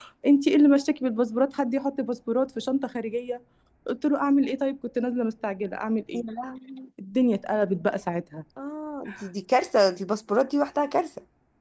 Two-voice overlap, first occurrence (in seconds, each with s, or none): none